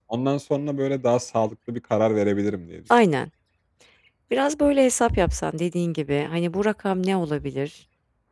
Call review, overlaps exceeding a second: none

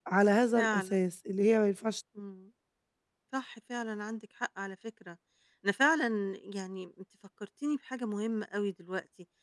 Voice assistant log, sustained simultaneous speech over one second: none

